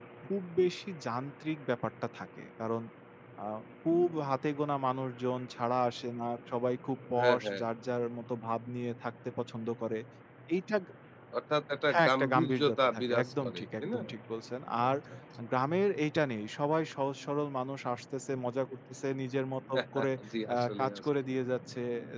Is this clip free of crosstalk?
No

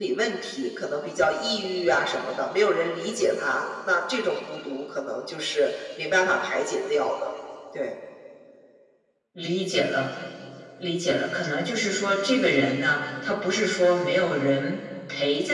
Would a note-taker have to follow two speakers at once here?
No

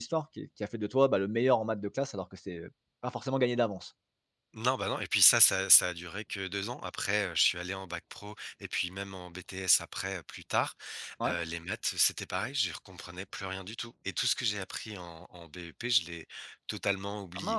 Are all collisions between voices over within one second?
Yes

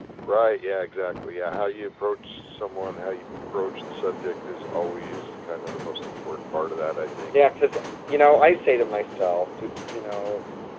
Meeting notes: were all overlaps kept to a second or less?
Yes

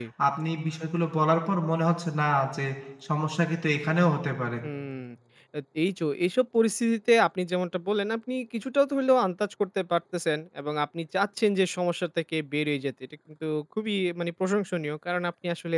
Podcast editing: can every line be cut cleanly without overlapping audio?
Yes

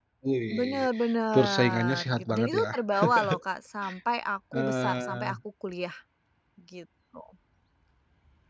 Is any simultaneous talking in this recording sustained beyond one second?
Yes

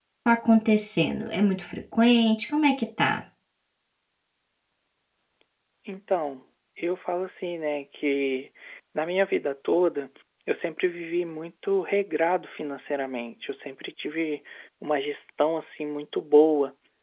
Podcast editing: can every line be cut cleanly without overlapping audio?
Yes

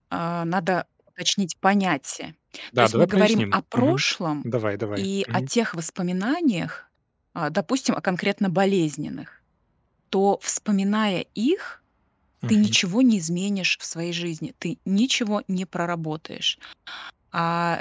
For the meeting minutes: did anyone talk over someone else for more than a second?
Yes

